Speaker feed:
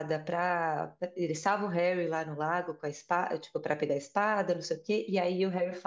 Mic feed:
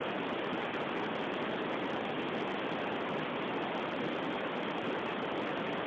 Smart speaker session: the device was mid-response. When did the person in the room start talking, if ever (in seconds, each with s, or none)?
none